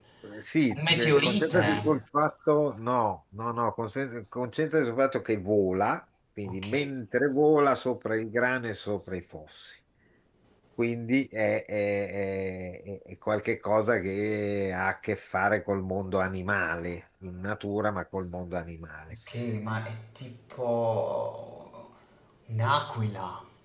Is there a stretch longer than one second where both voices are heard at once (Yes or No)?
Yes